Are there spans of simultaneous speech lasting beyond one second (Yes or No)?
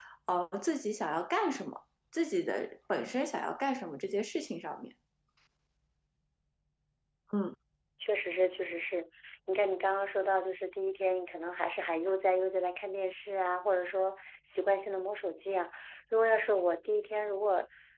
No